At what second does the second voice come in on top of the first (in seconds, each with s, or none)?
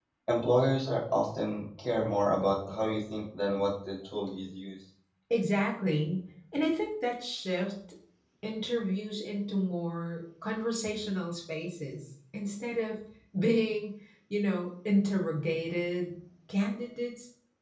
none